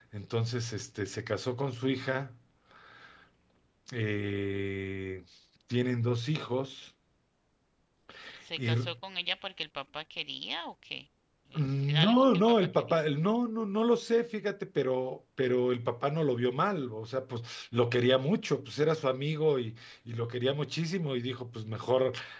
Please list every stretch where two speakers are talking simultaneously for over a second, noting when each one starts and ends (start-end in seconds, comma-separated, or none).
11.5-13.0